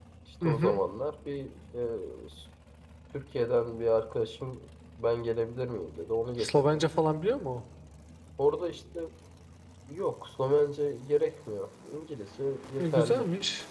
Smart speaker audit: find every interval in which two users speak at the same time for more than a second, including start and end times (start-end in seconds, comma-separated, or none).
none